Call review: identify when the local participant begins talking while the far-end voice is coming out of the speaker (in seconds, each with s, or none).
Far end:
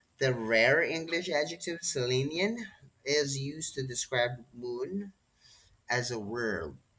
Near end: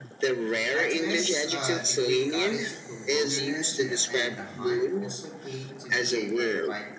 0.7 s